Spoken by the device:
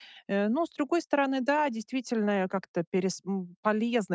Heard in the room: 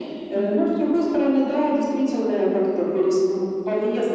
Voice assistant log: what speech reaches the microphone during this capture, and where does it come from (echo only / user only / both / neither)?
both